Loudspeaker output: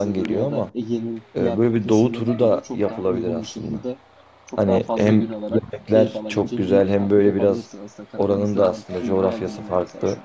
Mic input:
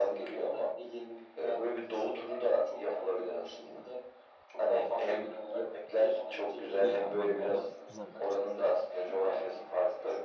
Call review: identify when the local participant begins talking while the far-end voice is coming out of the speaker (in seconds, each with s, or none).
6.8 s